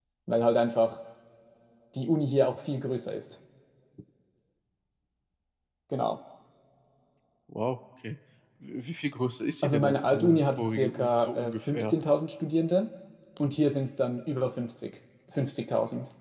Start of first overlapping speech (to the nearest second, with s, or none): 10 s